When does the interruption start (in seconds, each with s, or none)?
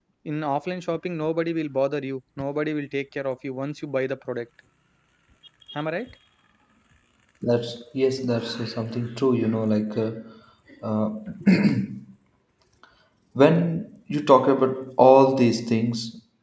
none